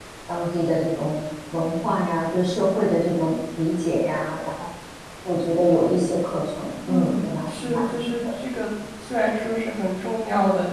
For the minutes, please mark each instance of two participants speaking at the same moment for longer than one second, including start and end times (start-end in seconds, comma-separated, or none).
6.9-8.3